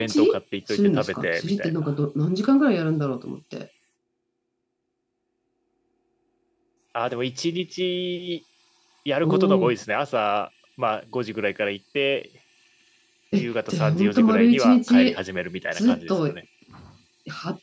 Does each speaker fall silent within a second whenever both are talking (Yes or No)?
No